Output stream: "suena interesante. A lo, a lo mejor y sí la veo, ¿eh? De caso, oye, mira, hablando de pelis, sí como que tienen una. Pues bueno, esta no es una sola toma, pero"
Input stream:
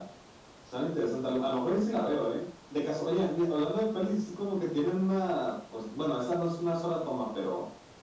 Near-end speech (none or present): none